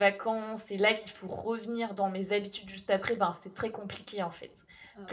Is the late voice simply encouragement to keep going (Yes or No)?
Yes